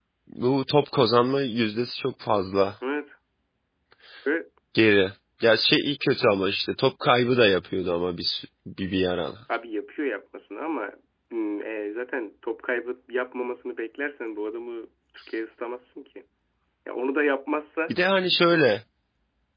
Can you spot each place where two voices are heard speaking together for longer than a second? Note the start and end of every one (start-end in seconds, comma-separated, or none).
none